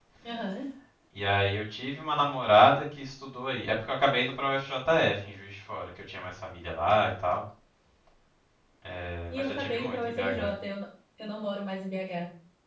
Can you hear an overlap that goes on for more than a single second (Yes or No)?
Yes